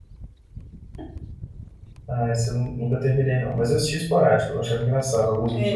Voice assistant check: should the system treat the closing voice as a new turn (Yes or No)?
Yes